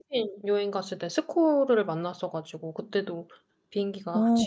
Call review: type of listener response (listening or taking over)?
listening